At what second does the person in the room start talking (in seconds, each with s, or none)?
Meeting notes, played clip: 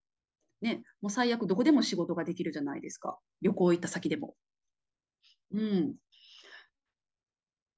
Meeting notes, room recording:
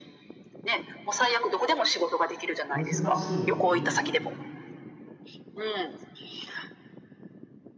2.7 s